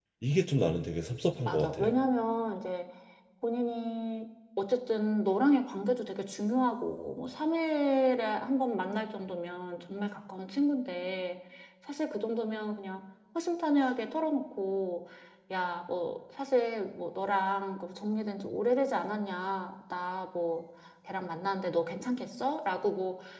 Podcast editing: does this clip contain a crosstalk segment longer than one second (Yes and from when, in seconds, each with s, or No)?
No